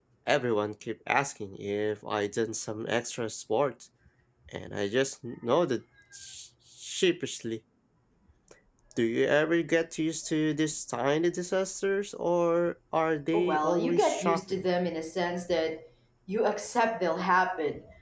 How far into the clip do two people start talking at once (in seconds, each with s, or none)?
13.3 s